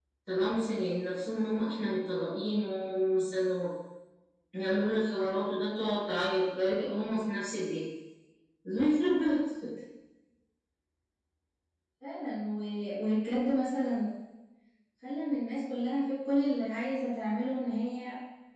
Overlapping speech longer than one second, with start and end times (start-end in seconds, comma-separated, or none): none